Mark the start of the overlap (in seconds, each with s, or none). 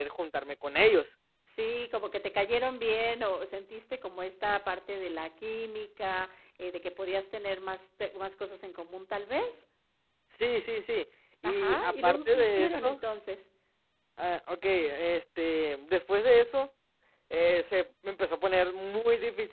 11.4 s